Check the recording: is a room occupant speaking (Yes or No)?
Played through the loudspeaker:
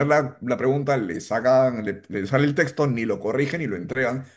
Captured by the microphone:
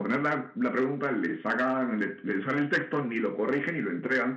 No